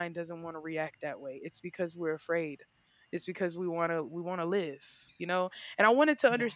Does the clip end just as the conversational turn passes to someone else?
No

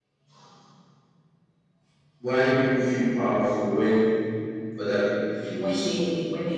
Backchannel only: No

